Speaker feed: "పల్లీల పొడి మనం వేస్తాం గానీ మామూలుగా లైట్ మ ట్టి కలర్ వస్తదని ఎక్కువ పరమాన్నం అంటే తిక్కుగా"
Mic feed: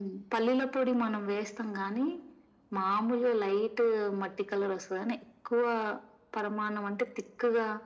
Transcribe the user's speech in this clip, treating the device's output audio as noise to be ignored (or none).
none